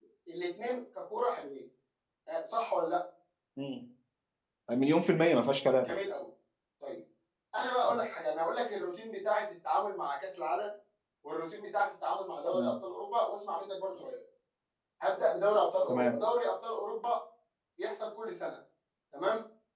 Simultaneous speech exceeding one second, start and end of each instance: none

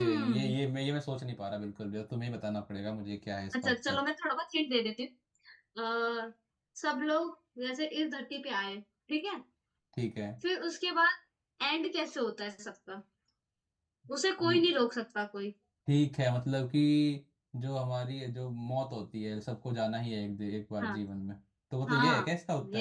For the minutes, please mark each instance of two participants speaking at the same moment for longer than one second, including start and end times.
none

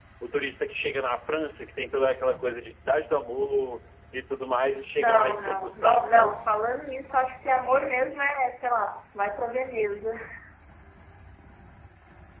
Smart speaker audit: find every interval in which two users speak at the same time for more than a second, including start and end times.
5.0-6.3

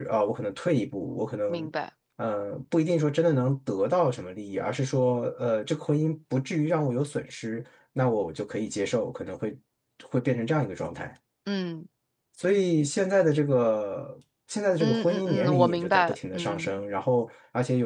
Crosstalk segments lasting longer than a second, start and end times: 14.8-16.7

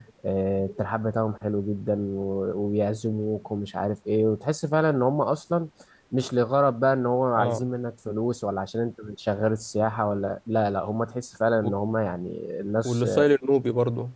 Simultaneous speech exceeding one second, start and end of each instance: none

